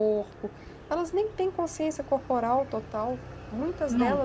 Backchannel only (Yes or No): No